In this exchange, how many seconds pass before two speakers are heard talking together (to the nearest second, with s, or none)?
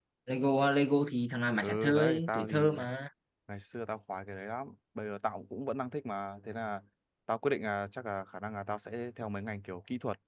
2 s